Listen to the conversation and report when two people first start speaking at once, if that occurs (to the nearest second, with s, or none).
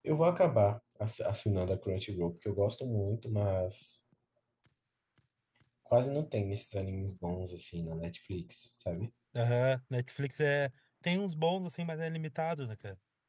none